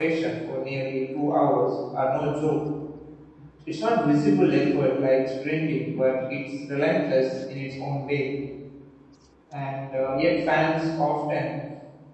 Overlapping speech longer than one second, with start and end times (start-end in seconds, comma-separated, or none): none